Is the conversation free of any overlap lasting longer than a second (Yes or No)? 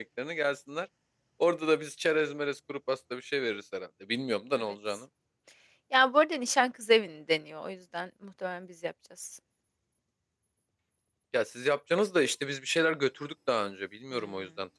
Yes